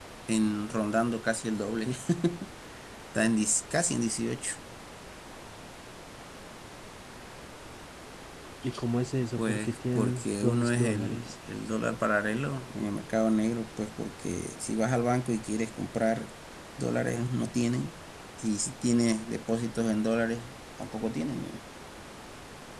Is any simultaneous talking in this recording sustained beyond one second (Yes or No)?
Yes